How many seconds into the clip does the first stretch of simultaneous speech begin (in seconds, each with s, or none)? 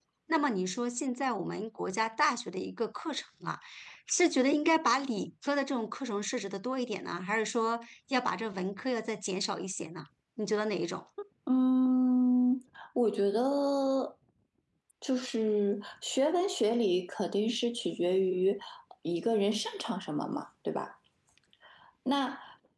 none